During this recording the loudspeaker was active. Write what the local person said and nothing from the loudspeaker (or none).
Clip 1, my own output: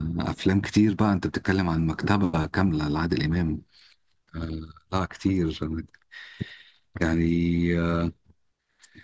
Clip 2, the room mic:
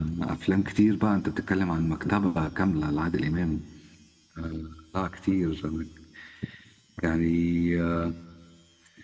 none